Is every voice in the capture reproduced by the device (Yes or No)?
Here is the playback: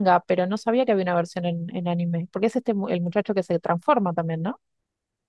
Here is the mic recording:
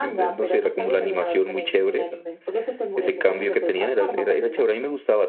No